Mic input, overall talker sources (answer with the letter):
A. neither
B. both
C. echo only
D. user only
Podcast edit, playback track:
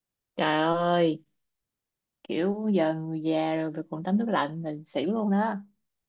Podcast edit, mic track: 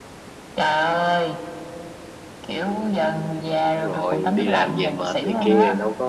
B